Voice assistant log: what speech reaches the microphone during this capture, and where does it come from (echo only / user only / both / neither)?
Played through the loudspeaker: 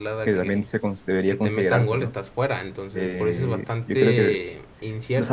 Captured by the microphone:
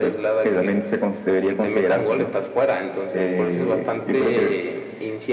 echo only